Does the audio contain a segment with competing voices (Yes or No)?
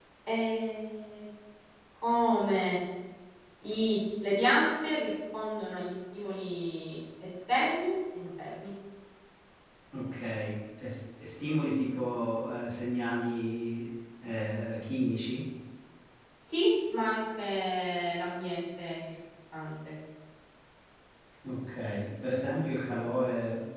No